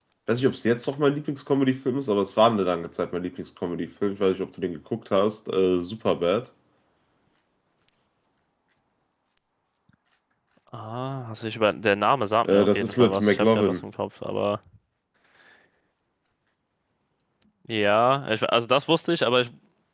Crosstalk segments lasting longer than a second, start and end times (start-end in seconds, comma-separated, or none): 12.4-13.8